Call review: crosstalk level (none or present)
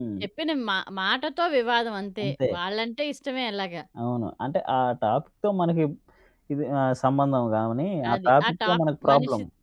present